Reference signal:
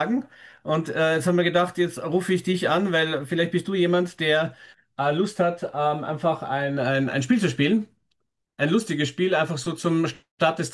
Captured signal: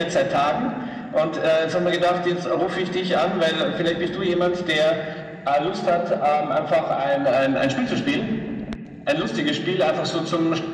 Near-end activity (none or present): none